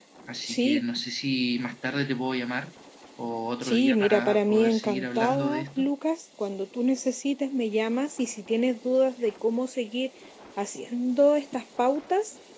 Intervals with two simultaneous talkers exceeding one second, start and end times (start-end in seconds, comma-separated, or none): 3.6-5.9